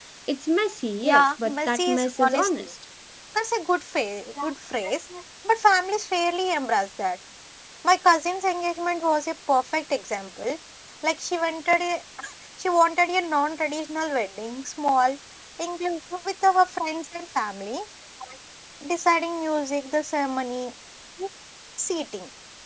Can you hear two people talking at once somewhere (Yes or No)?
Yes